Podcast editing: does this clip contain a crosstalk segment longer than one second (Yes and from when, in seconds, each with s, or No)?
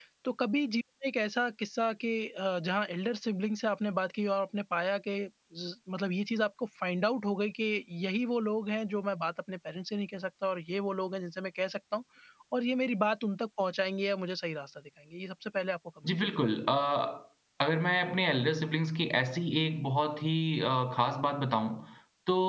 No